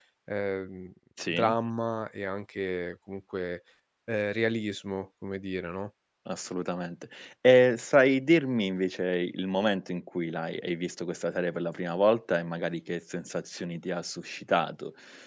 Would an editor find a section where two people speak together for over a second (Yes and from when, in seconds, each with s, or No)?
No